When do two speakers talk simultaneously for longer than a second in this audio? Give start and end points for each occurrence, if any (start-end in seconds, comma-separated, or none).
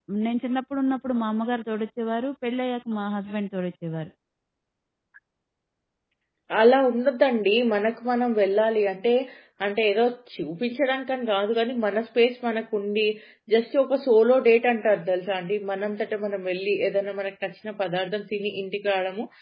none